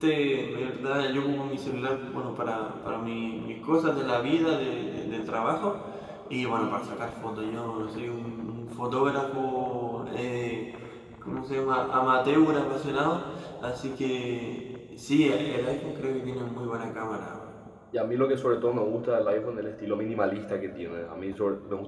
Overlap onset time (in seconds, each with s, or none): none